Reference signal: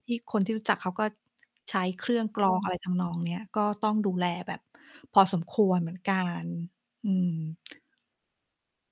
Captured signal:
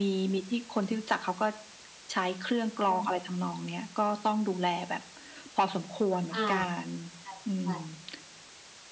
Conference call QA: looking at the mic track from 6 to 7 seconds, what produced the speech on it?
both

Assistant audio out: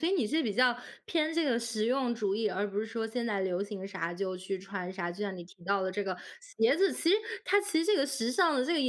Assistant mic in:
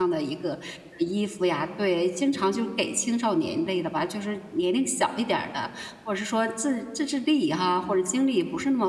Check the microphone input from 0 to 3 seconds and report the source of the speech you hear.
user only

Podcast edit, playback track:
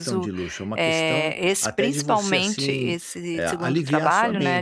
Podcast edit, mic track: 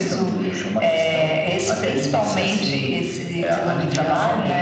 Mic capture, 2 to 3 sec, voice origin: echo only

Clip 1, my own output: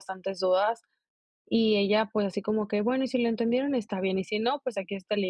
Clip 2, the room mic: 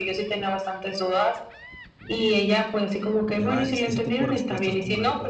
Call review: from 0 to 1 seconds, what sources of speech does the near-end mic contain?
echo only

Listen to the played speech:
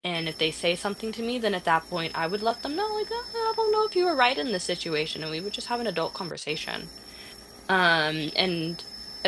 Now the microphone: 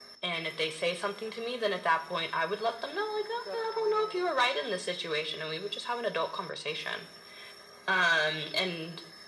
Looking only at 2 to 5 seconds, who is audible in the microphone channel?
both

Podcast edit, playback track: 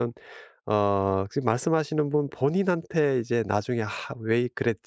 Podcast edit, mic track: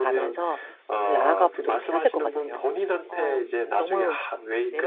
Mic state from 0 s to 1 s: both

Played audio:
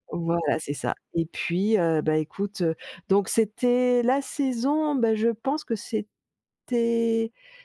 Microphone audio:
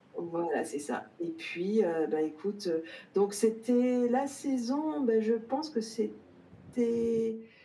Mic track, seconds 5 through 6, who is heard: echo only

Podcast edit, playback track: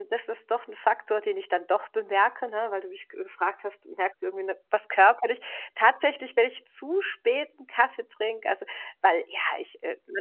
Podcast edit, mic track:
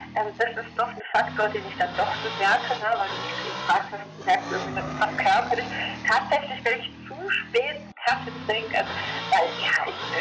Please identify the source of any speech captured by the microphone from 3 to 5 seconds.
echo only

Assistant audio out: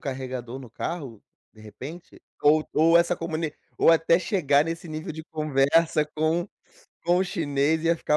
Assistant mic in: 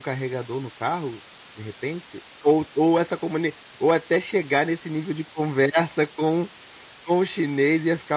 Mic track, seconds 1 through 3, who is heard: echo only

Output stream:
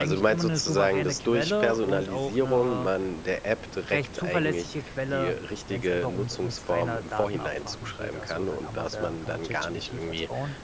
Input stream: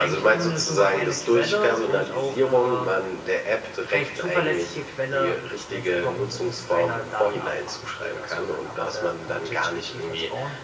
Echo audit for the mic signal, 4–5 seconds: echo only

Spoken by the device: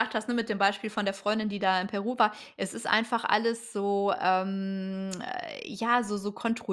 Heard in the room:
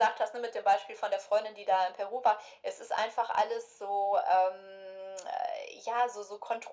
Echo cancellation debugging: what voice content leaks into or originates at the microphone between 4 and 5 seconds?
echo only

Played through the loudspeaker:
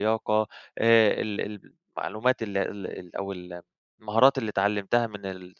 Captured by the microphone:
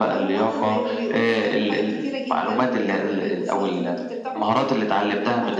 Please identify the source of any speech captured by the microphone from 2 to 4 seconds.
both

